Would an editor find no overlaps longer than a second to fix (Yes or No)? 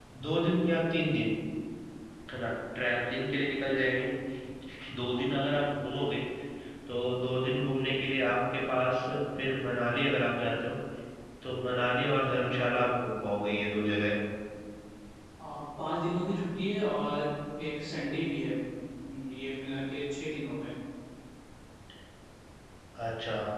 Yes